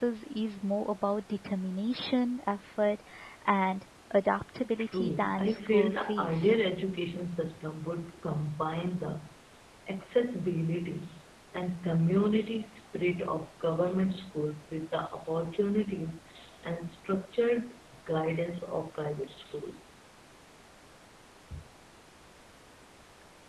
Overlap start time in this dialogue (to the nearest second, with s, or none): 5 s